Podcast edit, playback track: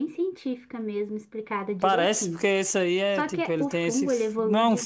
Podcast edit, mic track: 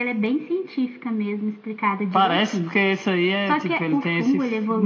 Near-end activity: none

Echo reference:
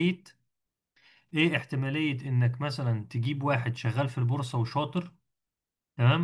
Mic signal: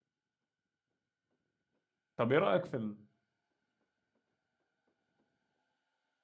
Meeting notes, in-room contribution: present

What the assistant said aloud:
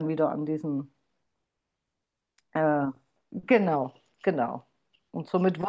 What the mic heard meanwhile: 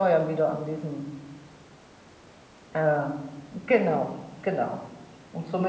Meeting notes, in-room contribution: none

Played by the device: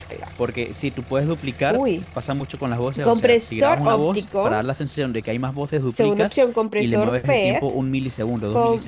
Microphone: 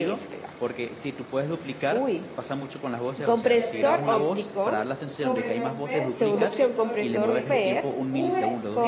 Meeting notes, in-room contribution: present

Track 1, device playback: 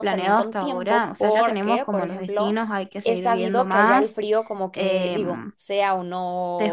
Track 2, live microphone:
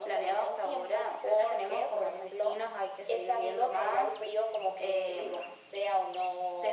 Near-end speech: none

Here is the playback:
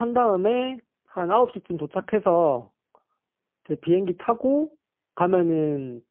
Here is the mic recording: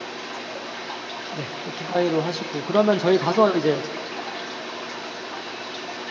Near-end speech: present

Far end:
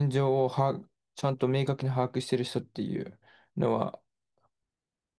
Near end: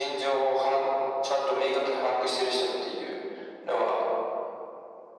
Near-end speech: none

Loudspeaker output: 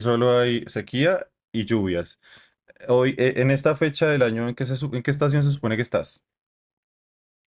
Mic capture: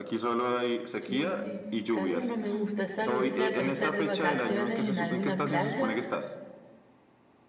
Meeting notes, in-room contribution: present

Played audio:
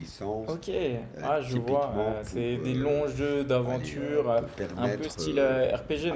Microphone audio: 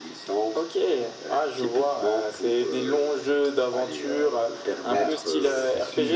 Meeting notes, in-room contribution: present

